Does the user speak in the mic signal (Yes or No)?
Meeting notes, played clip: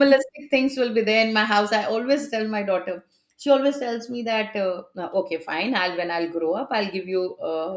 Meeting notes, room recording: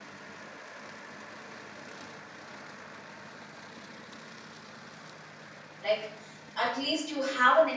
Yes